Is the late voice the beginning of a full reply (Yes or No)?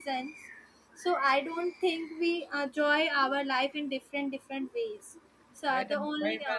Yes